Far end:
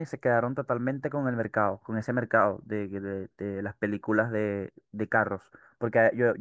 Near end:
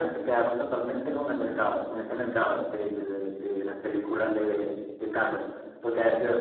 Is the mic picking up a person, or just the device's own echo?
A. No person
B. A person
A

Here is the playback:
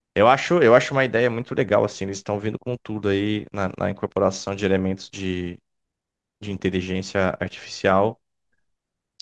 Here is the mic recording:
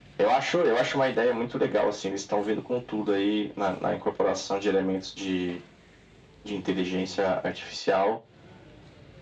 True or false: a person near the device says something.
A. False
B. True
A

